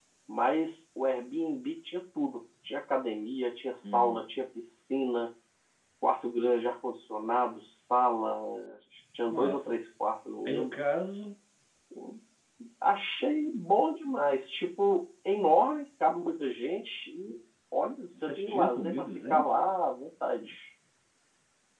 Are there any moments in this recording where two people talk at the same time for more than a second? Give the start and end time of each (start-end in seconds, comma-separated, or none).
18.2-19.6